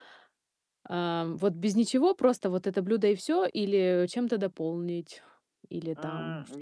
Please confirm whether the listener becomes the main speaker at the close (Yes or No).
Yes